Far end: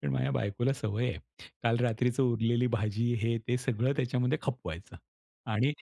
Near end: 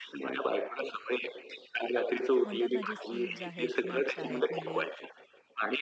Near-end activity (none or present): present